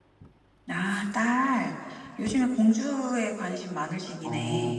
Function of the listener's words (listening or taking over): taking over